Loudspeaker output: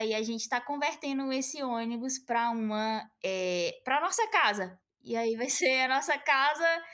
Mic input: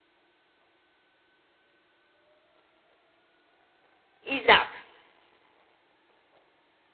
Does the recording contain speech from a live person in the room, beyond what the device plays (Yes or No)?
Yes